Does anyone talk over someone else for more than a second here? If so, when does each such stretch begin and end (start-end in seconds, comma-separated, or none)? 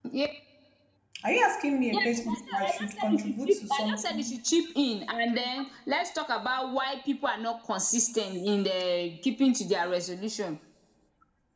1.9-4.4